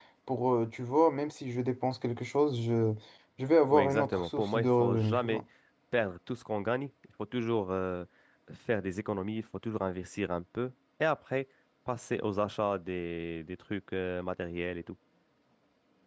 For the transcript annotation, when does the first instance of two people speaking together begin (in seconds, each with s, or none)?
3.7 s